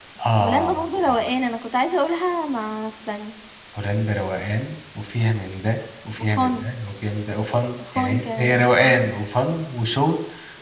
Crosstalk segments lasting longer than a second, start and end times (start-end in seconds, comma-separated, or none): 7.9-9.1